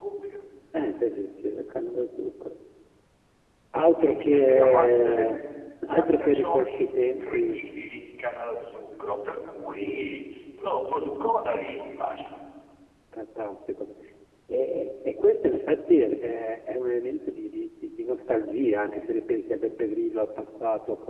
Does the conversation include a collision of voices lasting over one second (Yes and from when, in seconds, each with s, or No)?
Yes, from 4.0 s